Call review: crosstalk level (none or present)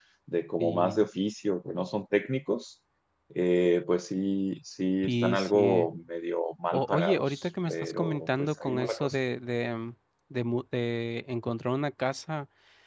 present